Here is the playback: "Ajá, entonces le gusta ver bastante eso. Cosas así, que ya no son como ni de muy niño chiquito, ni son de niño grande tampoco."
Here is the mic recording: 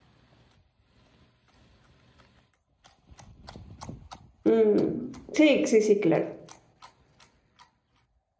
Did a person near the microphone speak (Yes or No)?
Yes